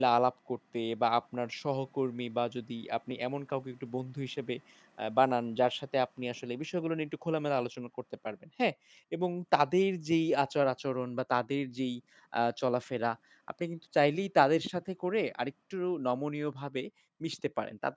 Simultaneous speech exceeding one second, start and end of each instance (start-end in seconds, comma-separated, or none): none